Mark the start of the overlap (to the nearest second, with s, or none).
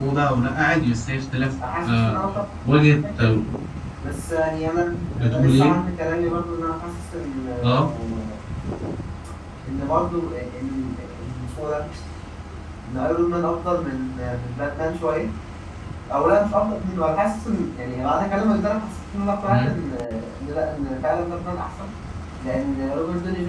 2 s